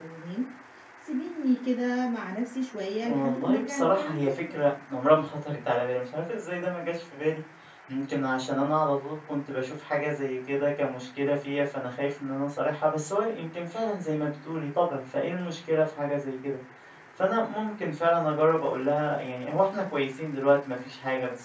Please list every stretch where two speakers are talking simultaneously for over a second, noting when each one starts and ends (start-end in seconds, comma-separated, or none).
3.0-4.5